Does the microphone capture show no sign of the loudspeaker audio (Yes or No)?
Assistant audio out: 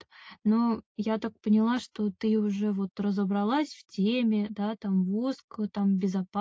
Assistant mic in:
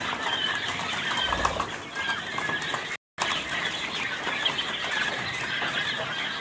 Yes